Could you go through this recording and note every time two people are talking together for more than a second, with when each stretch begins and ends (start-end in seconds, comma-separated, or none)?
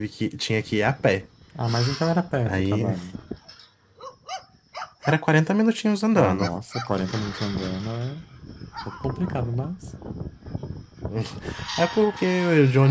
none